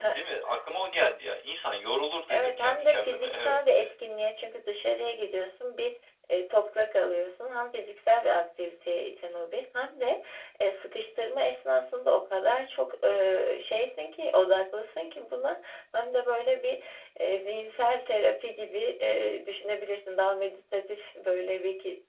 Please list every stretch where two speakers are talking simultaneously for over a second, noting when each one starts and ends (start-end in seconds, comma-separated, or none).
2.3-3.5